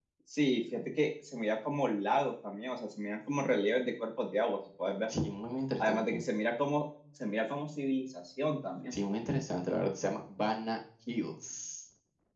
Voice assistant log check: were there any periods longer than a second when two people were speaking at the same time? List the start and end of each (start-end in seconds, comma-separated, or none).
none